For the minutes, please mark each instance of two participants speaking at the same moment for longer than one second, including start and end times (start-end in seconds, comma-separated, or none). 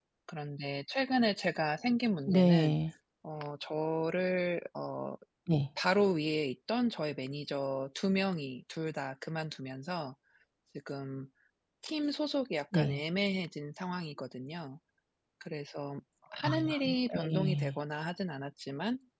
16.4-17.8